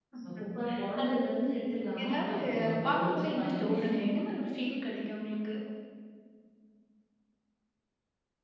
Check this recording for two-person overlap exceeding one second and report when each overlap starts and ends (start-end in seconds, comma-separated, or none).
2.0-3.7